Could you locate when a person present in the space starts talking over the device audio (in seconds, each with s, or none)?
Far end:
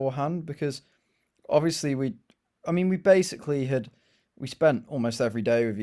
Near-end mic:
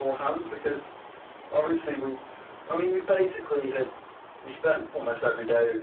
none